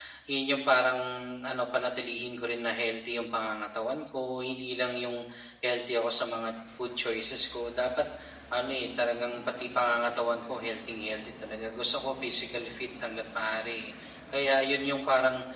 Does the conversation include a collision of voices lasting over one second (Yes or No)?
No